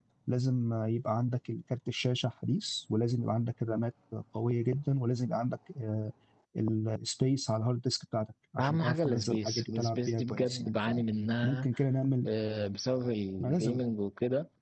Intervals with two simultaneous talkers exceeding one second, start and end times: 8.6-10.8

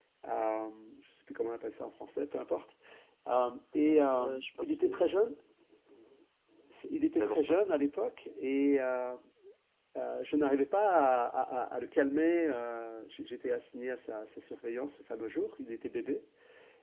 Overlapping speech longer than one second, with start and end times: 3.7-5.1

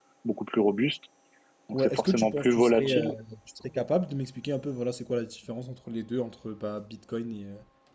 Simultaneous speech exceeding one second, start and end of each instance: 1.7-3.1

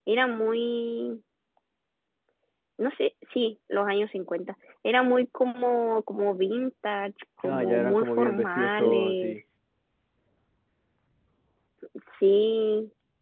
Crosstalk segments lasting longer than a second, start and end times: 7.4-9.3

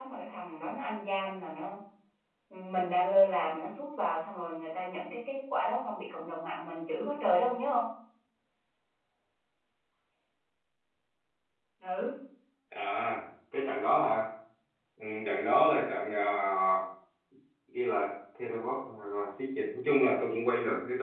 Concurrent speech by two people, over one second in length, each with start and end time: none

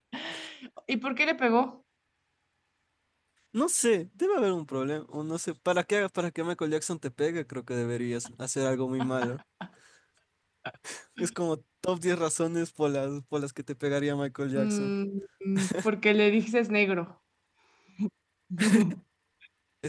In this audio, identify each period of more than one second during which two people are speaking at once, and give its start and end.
none

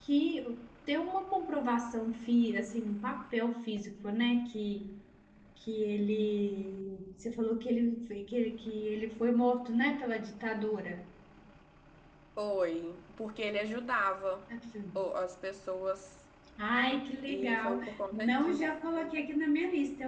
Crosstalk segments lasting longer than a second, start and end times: 17.3-18.7

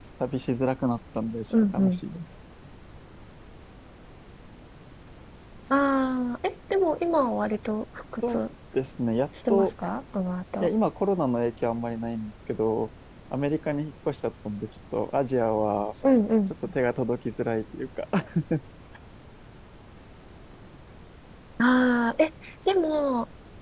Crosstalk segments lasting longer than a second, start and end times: none

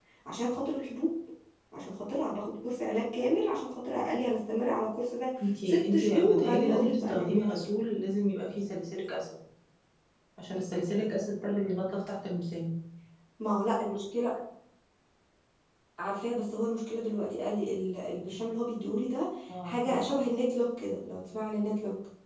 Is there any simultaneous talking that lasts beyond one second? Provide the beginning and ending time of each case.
5.6-7.7

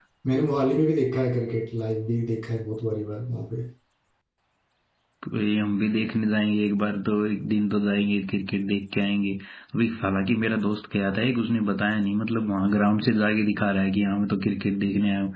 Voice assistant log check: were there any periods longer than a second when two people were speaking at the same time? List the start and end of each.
none

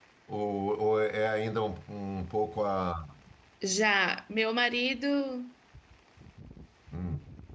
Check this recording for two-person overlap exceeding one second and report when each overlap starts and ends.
none

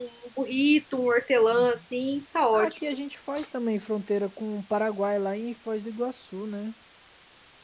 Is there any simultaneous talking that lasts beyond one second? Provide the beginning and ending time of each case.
none

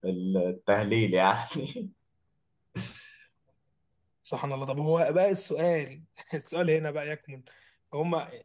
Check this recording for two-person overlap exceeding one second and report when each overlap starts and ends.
none

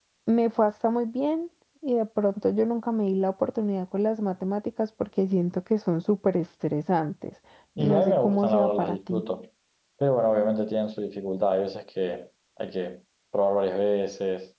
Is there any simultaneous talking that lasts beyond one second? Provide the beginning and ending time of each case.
7.8-9.2

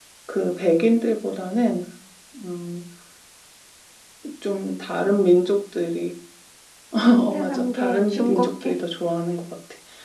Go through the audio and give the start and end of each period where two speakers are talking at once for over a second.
7.3-8.7

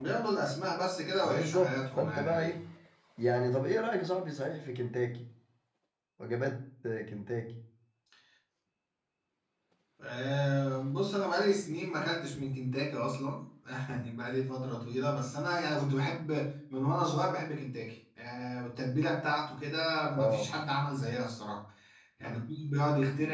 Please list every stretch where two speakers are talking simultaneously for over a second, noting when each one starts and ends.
1.2-2.5

